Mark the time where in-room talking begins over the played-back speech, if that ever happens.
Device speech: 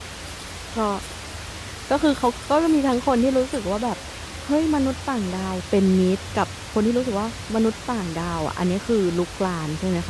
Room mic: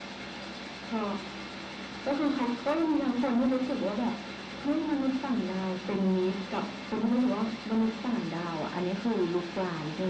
none

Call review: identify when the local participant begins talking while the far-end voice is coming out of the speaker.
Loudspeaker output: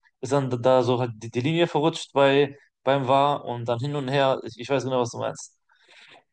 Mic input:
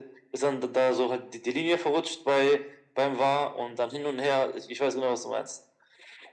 none

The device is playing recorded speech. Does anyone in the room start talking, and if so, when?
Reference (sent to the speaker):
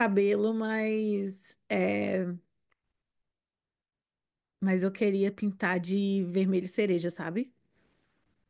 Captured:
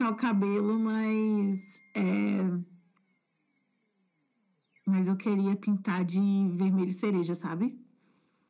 none

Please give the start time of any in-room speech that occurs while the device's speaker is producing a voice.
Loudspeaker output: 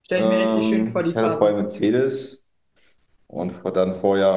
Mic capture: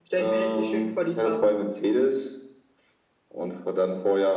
none

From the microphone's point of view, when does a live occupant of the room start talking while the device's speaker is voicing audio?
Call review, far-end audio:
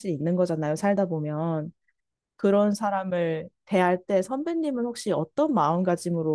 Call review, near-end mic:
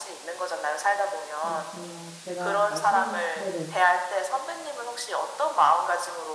1.4 s

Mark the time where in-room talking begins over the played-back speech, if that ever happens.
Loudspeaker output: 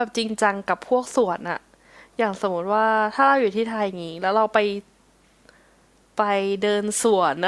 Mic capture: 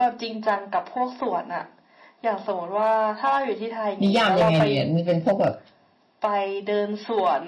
4.0 s

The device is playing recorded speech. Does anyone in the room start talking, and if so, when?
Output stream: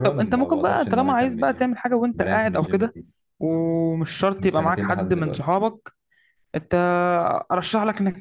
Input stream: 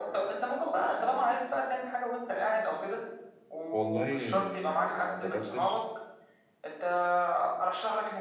3.7 s

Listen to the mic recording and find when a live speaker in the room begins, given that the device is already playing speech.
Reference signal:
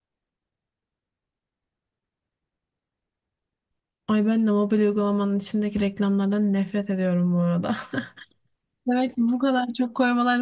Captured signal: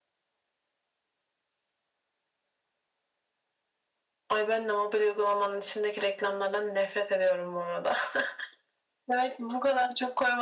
none

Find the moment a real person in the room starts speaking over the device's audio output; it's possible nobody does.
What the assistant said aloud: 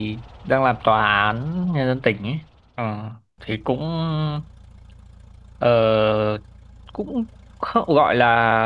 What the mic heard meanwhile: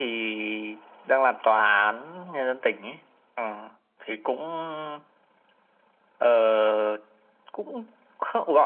none

